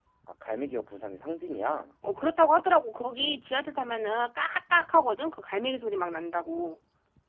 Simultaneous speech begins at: none

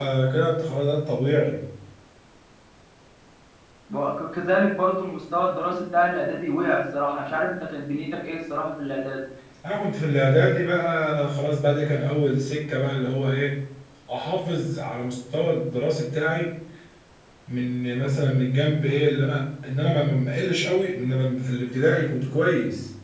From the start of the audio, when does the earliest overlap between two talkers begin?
none

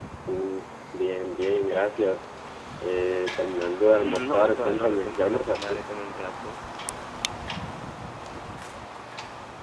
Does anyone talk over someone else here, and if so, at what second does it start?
4 s

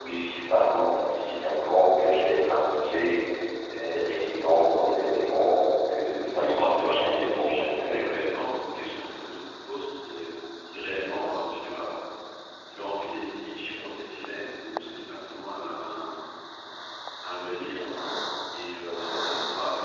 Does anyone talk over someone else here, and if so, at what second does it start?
6 s

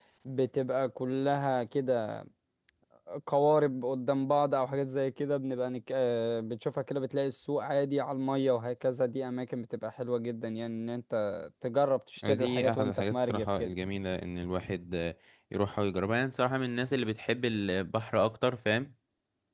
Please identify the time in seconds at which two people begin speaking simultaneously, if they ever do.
12 s

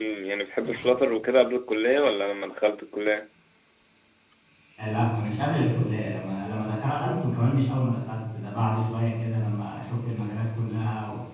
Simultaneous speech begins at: none

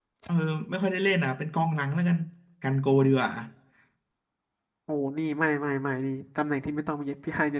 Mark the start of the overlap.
none

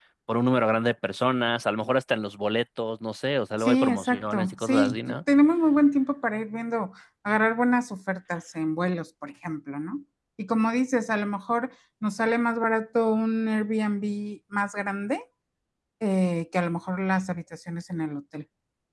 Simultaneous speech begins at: 4 s

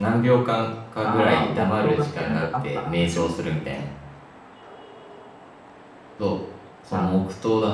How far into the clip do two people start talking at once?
1 s

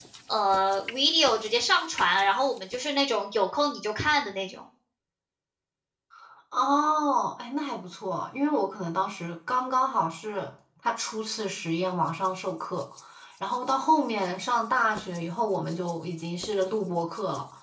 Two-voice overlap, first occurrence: none

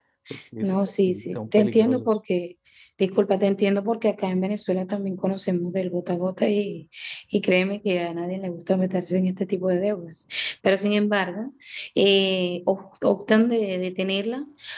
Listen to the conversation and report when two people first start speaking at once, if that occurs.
1 s

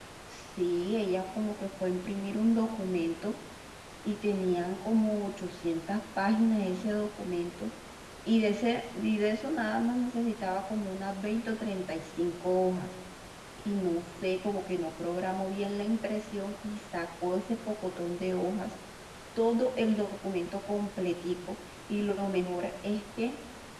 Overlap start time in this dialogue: none

